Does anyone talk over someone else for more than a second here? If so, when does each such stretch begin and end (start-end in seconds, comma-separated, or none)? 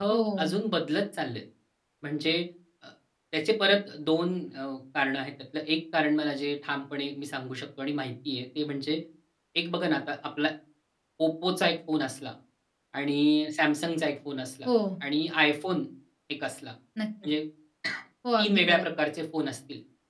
none